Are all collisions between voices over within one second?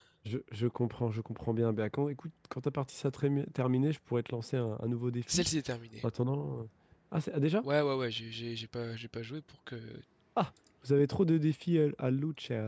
Yes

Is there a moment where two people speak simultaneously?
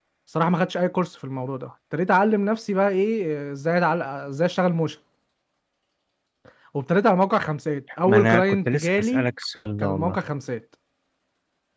Yes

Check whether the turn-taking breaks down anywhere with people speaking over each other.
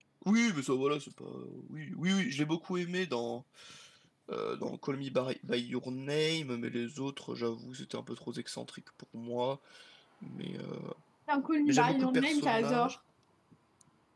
Yes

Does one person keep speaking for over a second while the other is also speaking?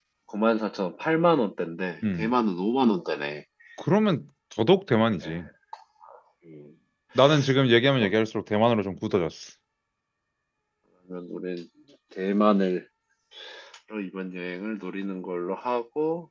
No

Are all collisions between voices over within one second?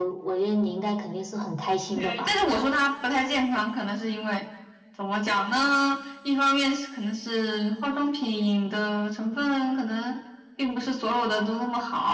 Yes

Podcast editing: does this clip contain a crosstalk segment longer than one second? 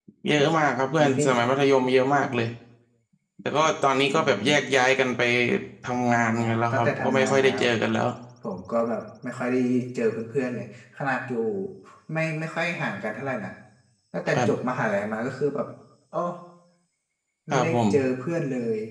Yes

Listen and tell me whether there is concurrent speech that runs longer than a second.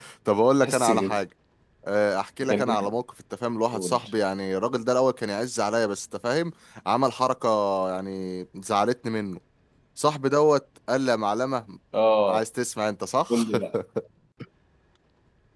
No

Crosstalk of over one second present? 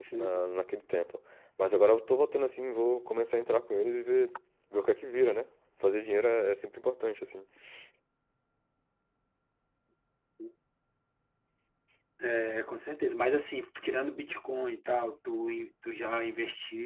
No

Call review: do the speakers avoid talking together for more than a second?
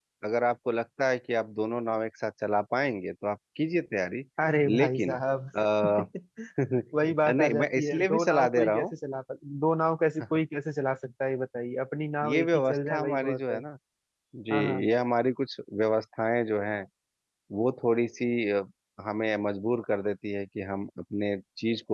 No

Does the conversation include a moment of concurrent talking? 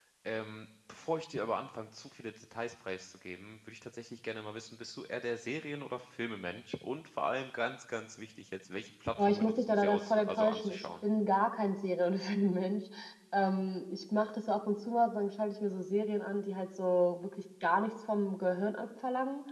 Yes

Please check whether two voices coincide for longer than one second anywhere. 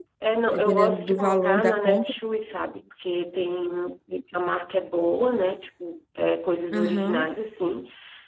Yes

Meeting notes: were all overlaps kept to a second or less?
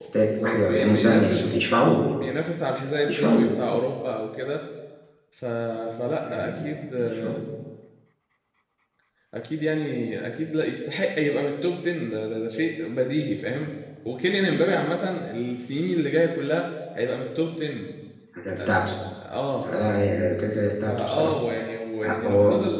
No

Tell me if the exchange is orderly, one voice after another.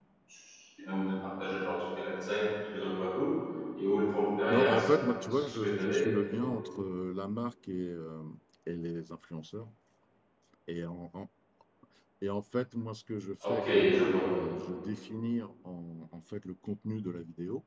No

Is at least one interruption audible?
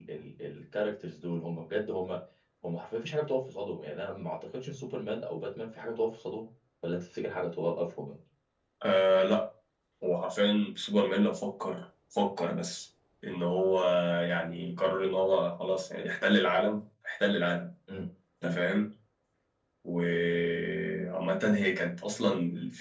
No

